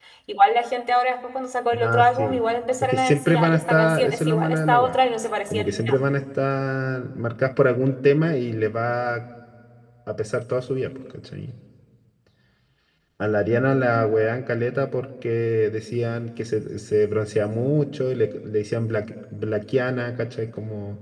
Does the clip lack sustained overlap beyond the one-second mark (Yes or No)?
No